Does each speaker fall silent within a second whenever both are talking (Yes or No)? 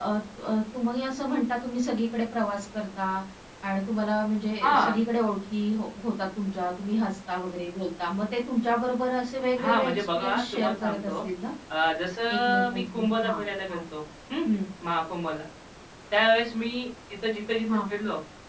No